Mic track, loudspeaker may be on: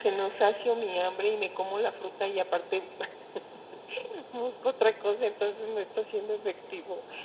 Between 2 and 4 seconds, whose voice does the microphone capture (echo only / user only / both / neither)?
echo only